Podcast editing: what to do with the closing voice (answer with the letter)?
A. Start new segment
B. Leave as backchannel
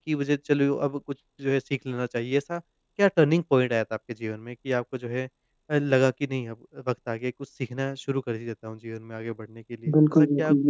A